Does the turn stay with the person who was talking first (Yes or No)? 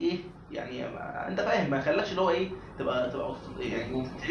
Yes